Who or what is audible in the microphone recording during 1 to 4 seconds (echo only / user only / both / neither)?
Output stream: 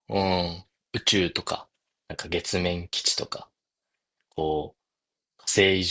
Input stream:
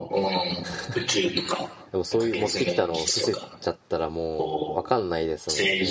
both